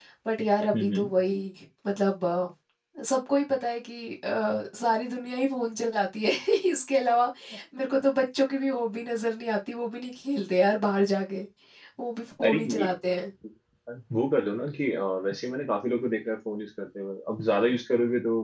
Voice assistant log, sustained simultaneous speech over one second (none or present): none